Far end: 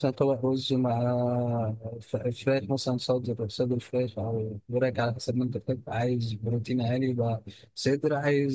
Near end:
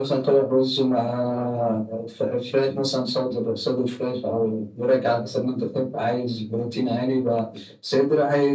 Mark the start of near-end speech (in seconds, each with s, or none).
none